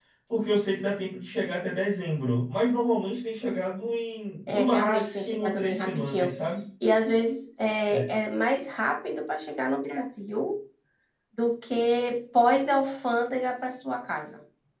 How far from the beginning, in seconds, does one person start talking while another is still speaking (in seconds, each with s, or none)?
4.5 s